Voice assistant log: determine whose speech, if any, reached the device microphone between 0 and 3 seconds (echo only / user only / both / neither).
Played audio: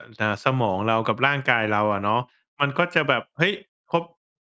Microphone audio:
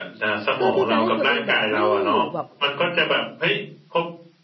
both